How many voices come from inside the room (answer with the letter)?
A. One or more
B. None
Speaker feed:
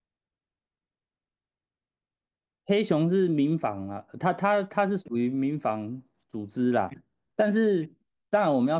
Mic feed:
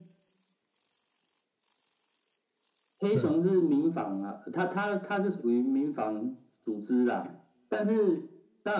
A